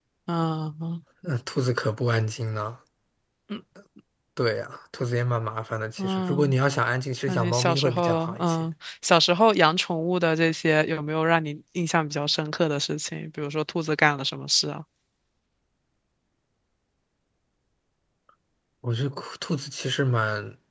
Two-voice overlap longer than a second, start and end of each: 7.3-8.7

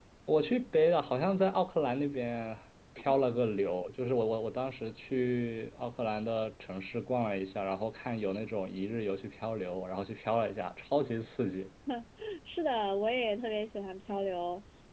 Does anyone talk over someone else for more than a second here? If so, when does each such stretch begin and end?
none

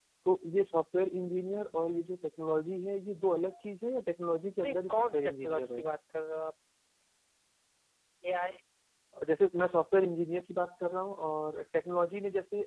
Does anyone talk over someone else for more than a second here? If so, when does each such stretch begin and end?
4.6-5.8

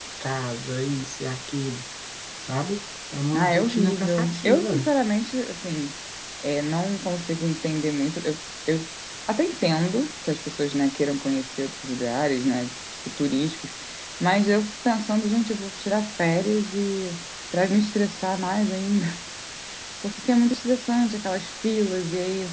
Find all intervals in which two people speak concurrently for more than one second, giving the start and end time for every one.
3.3-4.9

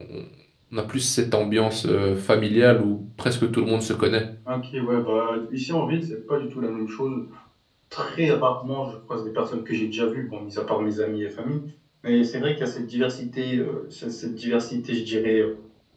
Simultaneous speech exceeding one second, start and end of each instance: none

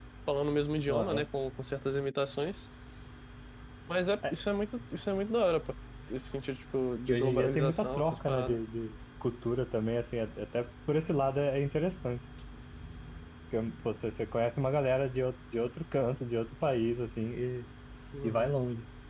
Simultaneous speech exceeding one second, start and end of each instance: 7.1-8.6

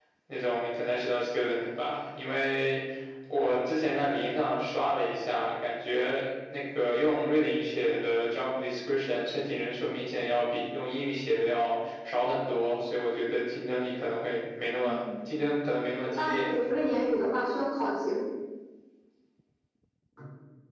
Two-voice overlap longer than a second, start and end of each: none

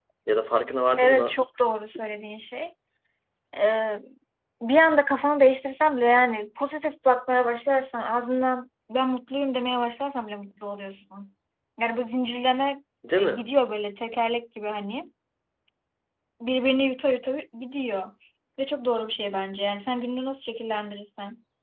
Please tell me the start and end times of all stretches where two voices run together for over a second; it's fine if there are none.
none

